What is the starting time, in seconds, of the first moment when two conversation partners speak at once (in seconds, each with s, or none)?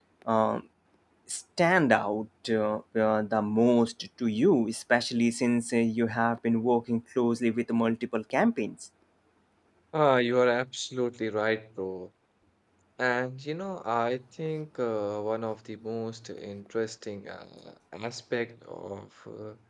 none